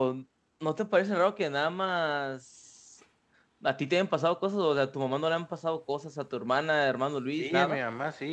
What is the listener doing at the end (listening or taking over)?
taking over